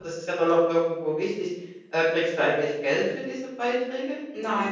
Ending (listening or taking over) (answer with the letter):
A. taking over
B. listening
A